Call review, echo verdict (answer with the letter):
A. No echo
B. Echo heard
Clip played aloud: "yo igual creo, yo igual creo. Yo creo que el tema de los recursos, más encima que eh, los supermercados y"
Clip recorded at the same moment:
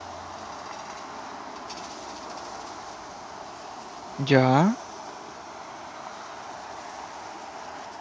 A